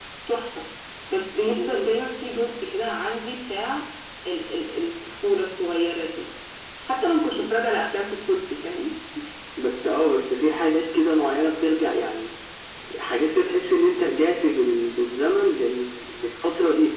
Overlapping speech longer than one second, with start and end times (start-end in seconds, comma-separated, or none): none